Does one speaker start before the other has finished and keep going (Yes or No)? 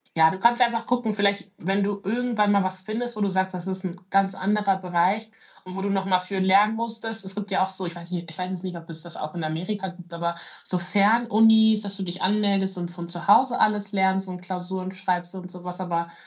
No